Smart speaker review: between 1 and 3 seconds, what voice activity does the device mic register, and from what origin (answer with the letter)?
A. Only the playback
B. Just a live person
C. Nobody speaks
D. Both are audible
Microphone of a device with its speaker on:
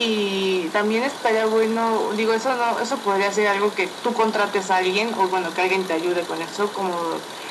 A